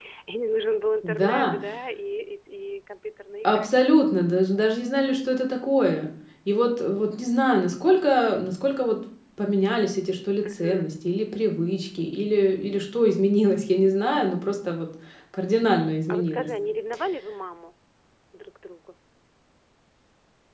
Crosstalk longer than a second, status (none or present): none